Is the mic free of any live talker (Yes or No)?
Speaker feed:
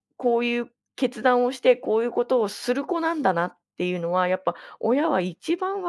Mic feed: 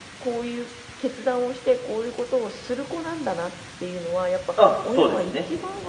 No